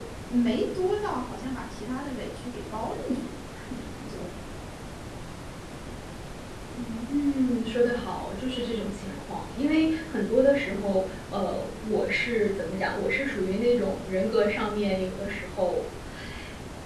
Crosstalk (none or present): none